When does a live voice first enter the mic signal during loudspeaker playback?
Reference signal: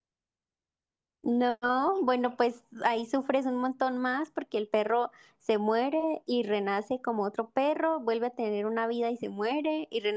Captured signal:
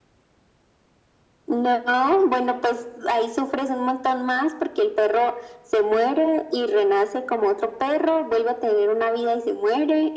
none

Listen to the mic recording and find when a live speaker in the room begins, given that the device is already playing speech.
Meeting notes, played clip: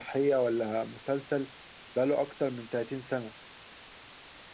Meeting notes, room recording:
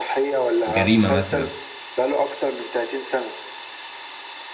0.7 s

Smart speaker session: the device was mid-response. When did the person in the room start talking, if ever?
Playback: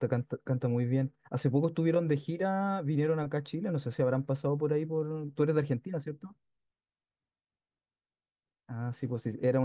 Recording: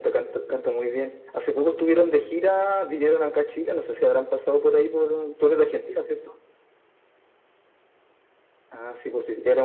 none

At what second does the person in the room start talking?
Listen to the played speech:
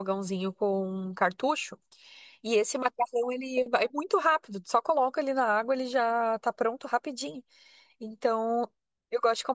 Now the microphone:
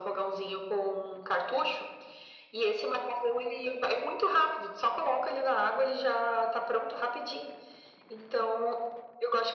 none

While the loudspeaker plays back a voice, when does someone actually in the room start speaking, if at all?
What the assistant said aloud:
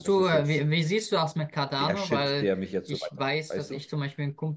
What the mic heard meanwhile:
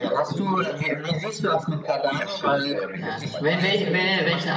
2.9 s

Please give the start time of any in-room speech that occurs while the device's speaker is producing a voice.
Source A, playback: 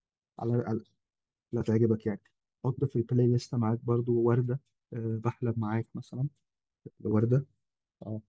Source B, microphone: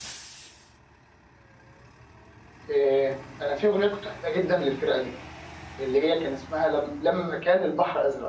2.7 s

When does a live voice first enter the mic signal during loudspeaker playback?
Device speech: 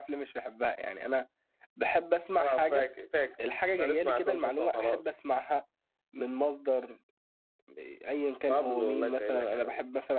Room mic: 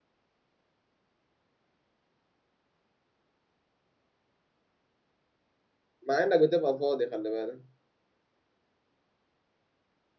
6.1 s

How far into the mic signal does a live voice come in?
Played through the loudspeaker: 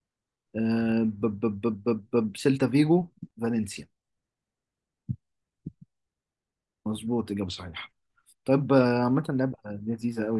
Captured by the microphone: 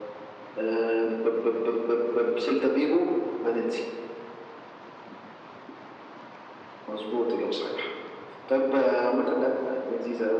none

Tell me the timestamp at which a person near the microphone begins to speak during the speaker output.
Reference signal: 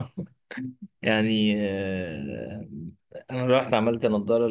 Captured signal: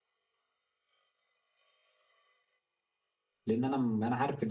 3.5 s

